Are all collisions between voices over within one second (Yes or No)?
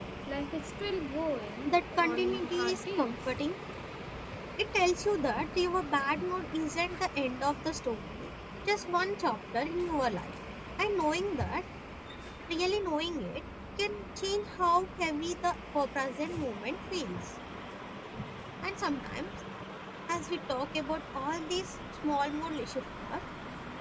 No